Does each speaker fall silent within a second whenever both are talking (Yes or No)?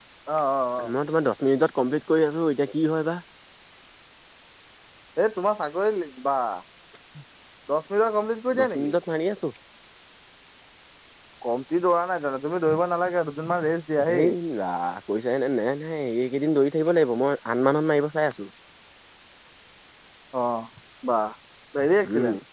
Yes